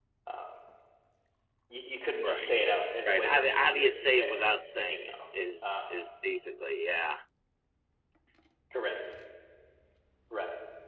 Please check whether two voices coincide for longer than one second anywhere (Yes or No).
Yes